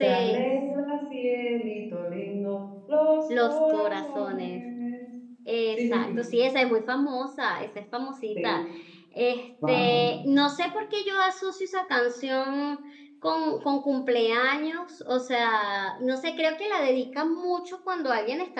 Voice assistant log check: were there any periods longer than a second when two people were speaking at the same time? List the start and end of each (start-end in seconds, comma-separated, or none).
3.4-4.6